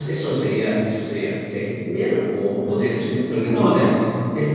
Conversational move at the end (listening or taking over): listening